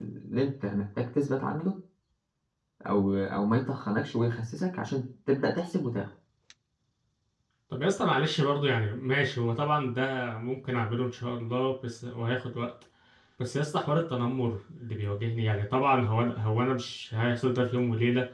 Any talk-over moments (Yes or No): No